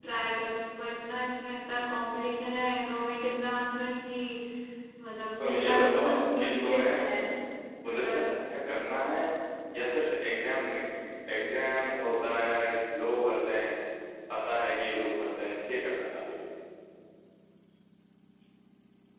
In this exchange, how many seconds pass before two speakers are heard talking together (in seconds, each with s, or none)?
5.4 s